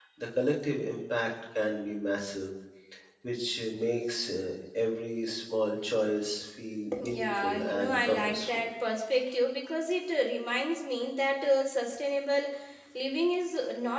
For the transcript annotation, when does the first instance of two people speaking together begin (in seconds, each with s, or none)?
6.9 s